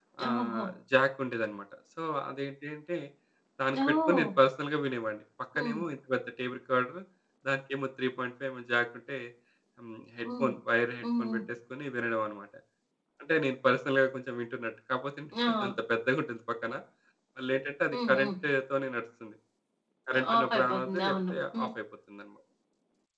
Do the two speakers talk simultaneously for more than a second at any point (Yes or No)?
Yes